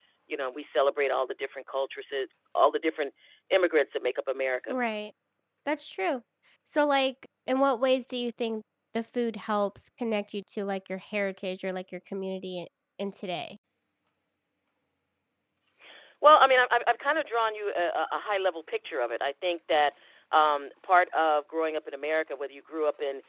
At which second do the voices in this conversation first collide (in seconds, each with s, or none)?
none